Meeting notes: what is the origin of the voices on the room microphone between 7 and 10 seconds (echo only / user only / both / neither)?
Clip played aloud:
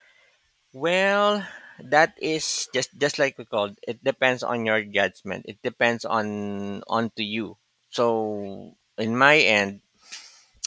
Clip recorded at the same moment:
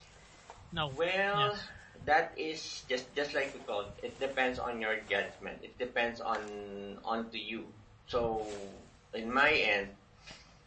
echo only